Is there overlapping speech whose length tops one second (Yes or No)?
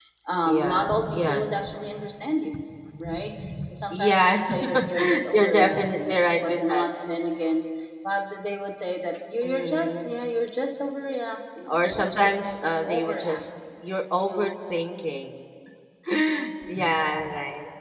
Yes